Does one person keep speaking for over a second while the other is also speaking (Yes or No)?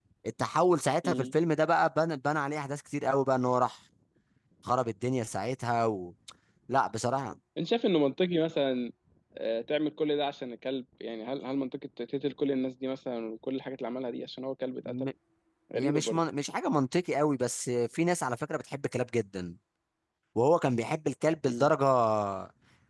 No